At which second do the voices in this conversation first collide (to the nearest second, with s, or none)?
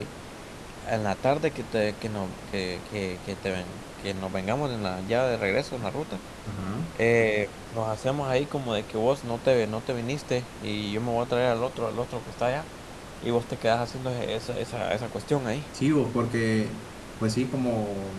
none